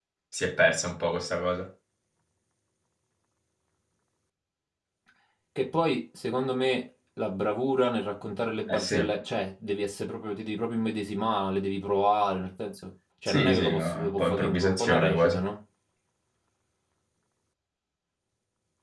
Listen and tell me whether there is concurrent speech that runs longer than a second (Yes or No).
Yes